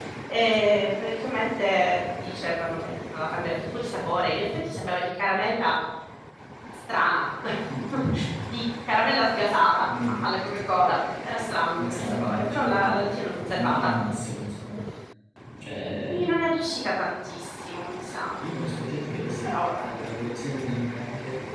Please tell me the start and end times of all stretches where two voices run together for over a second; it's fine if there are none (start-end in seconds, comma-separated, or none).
11.7-13.0